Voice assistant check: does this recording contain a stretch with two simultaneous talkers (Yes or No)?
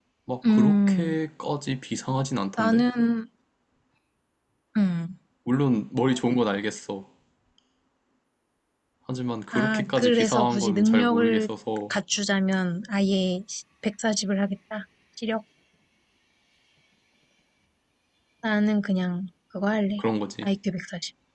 Yes